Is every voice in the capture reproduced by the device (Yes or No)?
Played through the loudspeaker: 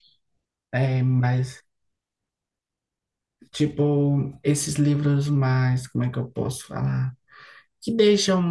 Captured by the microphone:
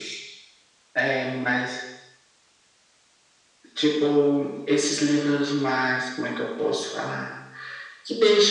Yes